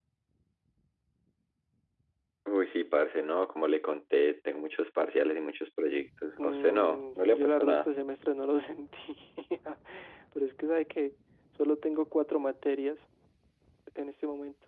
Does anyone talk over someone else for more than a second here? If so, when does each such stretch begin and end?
6.4-7.9

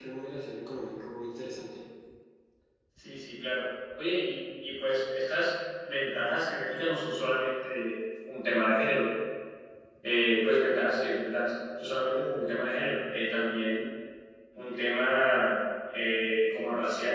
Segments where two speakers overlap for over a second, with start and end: none

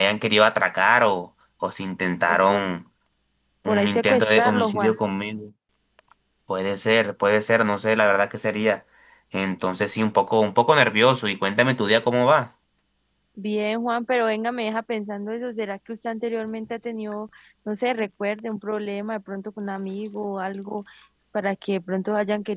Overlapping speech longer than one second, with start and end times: 3.7-5.0

